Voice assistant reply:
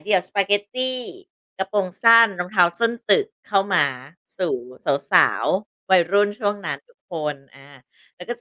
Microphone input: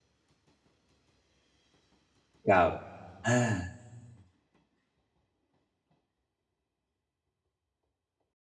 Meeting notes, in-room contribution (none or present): present